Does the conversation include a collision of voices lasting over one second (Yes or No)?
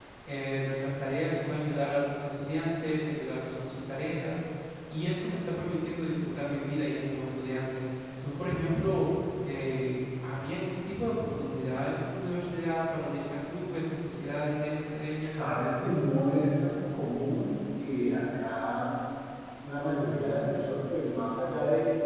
No